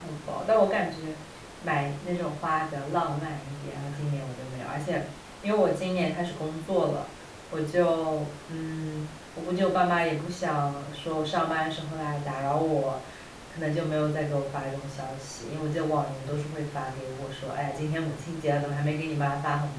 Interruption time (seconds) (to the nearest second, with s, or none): none